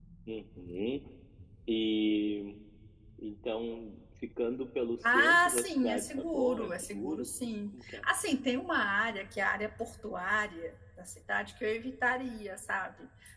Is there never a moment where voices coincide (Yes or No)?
No